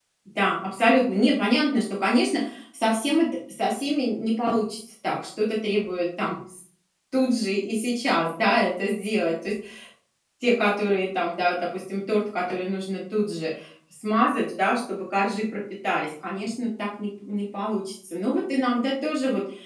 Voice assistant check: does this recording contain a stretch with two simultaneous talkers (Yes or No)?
No